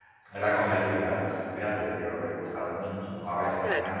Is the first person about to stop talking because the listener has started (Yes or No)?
No